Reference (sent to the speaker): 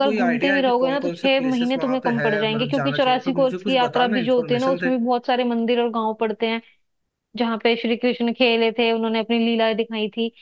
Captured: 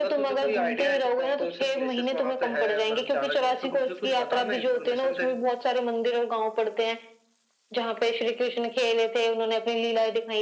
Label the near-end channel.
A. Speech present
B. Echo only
B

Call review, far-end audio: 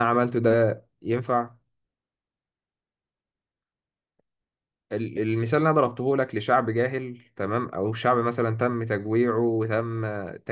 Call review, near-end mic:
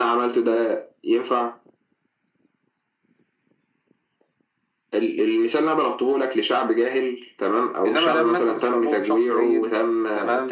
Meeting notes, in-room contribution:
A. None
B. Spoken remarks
B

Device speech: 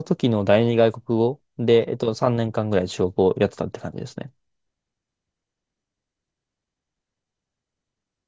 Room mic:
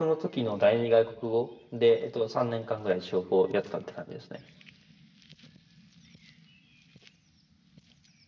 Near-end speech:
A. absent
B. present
A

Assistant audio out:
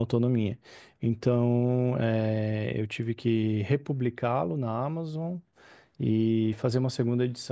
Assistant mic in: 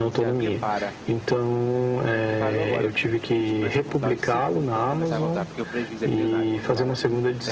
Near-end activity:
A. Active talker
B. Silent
A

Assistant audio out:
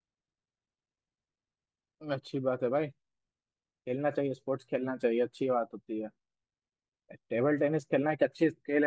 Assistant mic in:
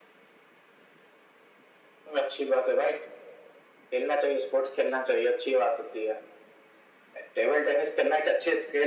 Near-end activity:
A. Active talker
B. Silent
B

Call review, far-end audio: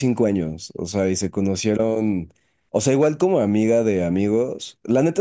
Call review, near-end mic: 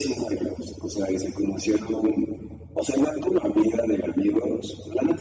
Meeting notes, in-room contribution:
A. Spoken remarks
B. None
B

